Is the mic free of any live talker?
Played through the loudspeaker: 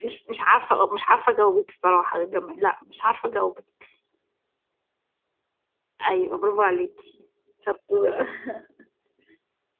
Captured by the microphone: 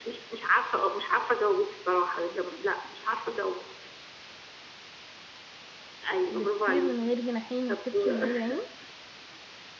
No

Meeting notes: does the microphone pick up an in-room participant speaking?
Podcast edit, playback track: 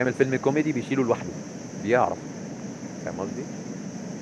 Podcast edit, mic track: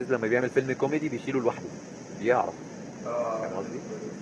Yes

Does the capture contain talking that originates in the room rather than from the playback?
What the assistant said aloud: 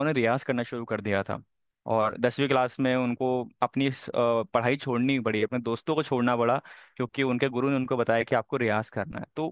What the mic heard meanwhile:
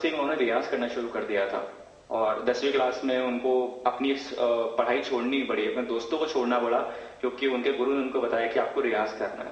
No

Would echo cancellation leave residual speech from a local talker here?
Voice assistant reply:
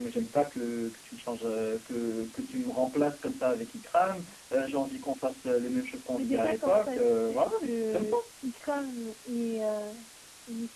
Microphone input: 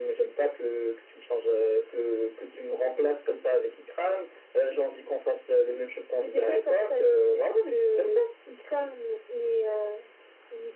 No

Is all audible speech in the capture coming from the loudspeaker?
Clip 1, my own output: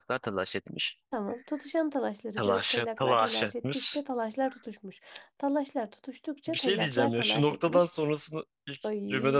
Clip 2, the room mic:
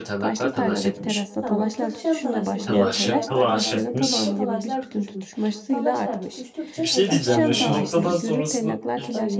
No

